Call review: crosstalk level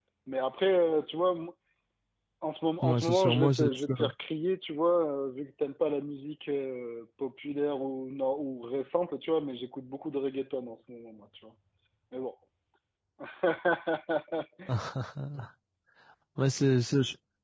present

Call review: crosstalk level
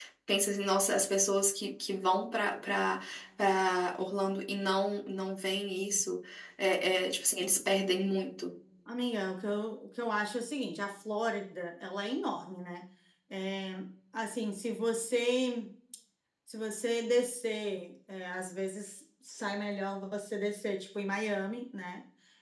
none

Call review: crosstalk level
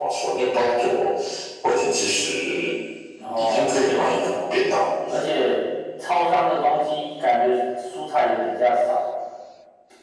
present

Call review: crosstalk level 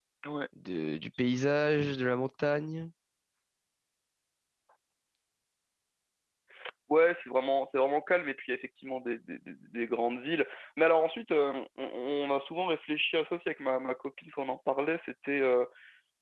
none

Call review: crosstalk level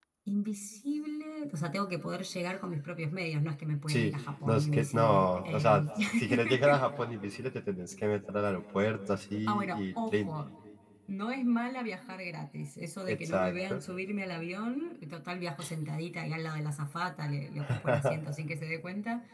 present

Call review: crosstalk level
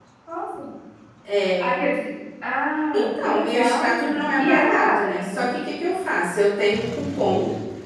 present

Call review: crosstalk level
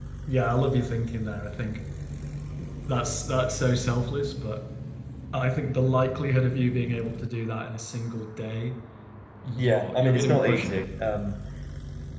present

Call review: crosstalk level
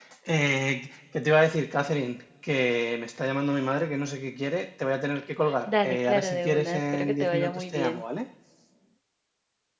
present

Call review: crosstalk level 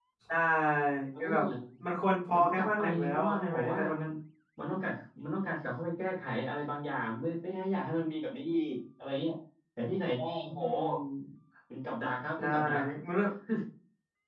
present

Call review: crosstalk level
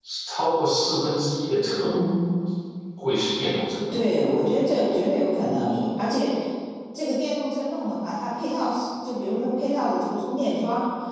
none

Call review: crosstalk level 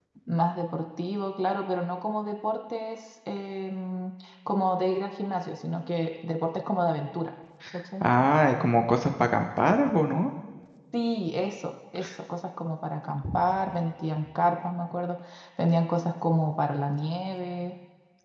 none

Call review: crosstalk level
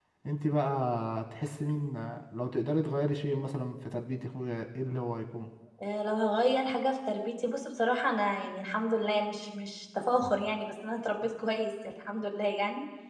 none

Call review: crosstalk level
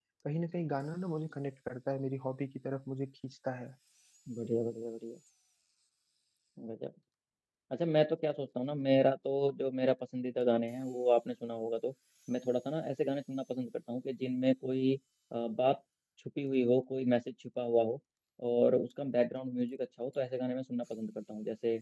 none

